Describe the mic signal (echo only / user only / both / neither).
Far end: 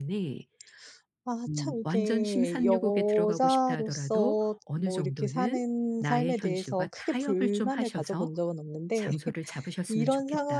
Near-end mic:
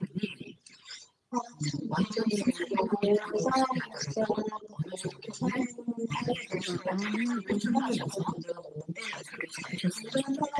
both